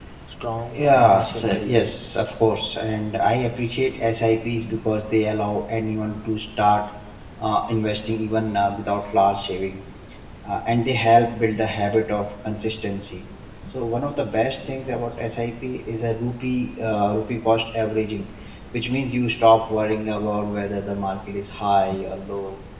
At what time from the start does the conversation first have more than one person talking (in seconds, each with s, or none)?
0.7 s